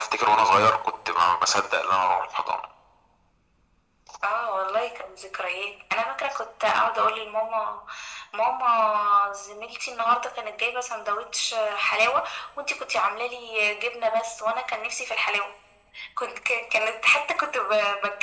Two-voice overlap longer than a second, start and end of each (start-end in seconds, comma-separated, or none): none